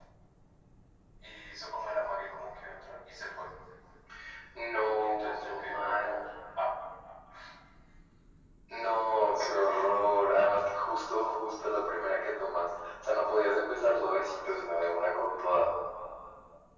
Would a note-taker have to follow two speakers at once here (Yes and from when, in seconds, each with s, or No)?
Yes, from 4.9 s